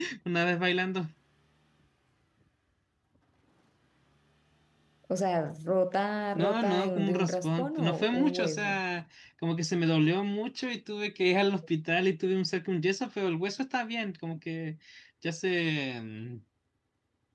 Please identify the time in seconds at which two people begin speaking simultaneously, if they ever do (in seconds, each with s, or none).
6.3 s